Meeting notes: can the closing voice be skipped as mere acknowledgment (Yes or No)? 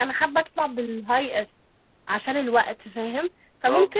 Yes